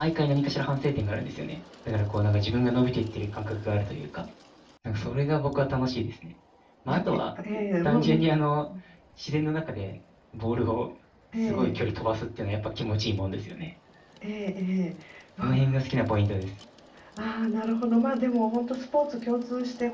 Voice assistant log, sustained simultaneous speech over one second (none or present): none